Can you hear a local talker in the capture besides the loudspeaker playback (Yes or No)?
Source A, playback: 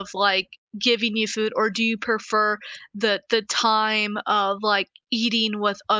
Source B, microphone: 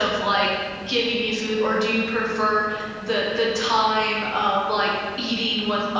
No